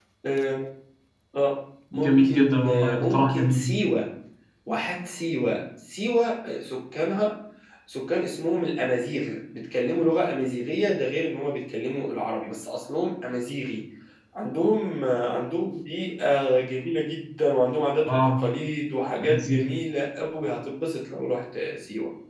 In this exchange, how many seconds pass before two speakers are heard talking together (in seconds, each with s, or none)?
1.9 s